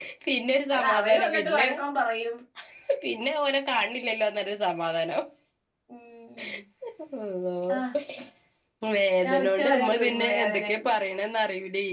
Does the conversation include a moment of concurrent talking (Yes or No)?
Yes